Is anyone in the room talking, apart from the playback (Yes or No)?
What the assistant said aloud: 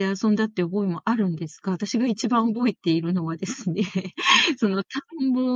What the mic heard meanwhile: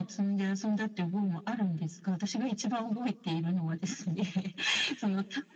No